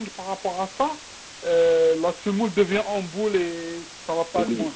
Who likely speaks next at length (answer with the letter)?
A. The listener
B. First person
A